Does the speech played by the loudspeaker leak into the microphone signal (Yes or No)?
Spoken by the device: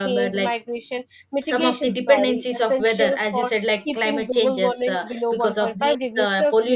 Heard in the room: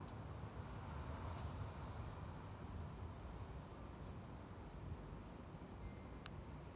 No